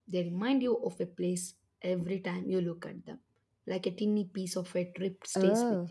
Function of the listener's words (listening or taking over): taking over